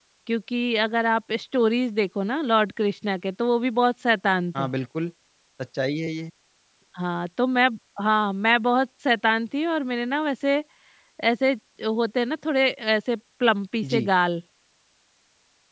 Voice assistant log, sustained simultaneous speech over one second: none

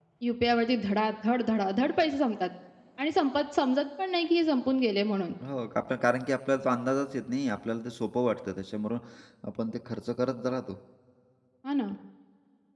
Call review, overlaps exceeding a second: none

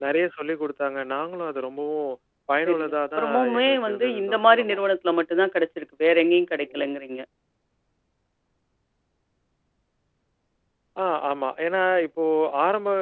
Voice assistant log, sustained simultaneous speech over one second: present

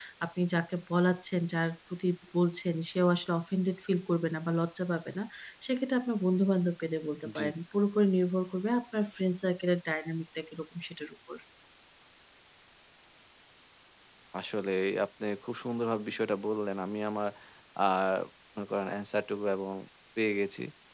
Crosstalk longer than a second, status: none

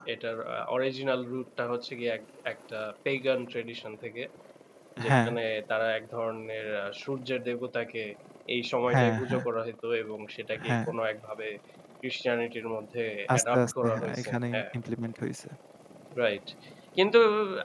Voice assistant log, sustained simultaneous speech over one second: present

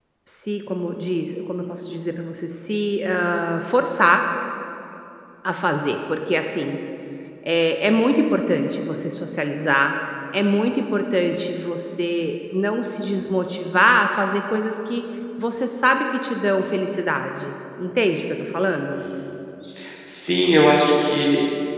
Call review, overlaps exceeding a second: none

